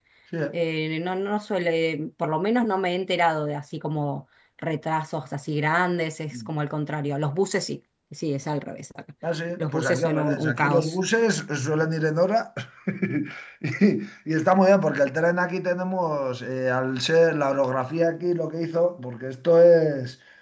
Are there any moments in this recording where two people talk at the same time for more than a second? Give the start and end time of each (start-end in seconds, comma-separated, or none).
9.6-10.9